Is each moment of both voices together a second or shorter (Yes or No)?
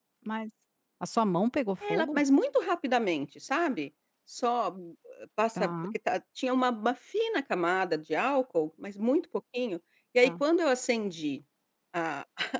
Yes